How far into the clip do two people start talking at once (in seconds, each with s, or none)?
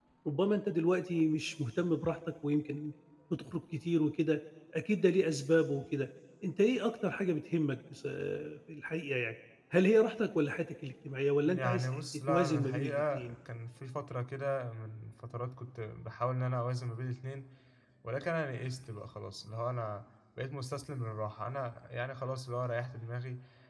11.5 s